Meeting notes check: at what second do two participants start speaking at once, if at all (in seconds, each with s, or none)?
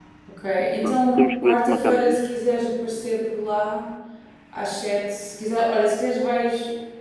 0.8 s